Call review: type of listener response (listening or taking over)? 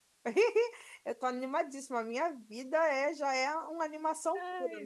listening